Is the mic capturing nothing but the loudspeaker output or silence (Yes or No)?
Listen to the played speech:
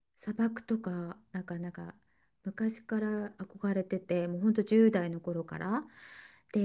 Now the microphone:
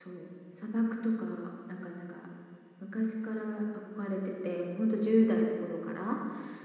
Yes